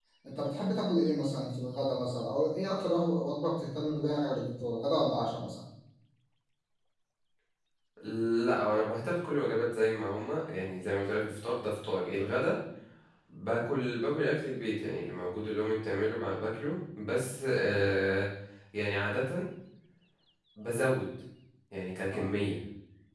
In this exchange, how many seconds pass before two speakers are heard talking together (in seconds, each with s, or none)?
none